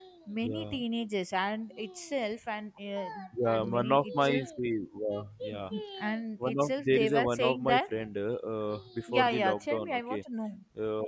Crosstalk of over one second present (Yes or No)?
Yes